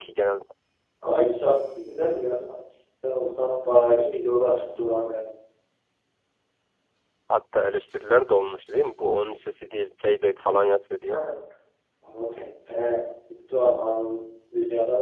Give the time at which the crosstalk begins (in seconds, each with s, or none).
none